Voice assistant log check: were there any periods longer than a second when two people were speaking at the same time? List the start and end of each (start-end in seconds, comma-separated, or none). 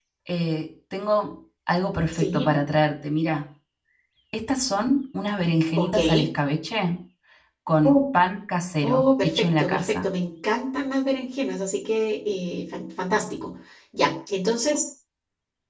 8.8-10.1